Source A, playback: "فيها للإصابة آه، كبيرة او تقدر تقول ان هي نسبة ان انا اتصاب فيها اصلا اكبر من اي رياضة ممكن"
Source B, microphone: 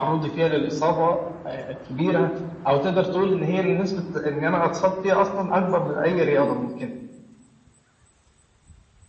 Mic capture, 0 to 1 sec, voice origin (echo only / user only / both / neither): echo only